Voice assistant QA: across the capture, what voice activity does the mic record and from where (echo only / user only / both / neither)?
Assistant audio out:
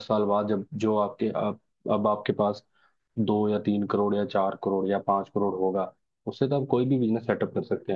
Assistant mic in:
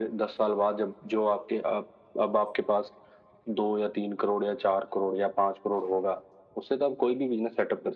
echo only